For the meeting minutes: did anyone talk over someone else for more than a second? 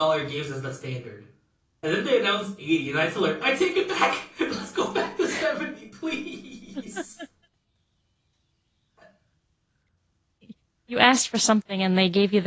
No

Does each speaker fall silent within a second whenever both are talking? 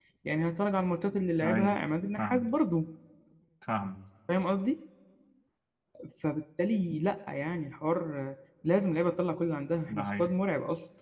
Yes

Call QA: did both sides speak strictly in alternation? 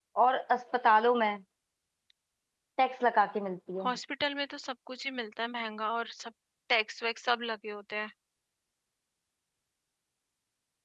Yes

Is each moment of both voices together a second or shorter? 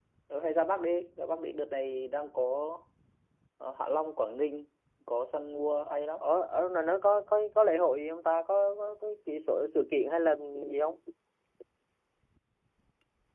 Yes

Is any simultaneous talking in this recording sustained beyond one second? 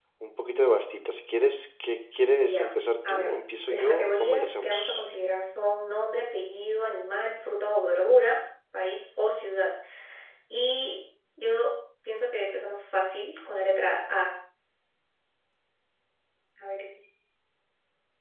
Yes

